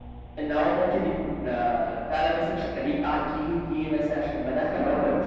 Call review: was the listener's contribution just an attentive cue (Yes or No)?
Yes